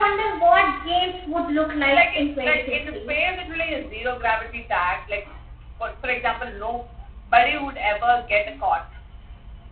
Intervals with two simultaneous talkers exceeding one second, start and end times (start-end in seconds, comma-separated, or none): 1.9-3.1